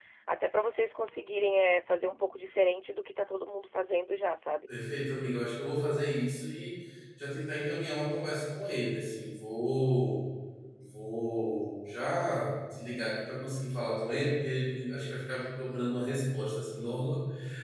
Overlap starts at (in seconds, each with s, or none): none